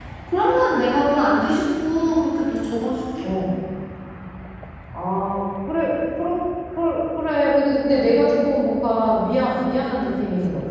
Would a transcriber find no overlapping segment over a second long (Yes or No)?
Yes